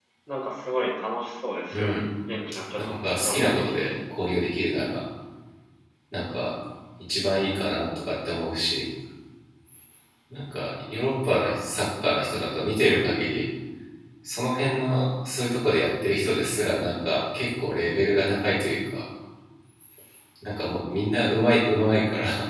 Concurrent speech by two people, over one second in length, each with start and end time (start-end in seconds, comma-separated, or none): 2.7-3.9